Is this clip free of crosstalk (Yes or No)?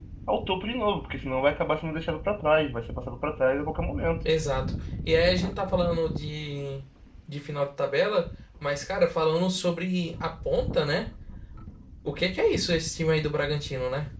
Yes